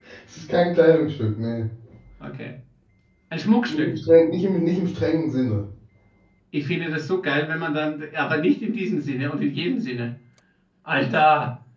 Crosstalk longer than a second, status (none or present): none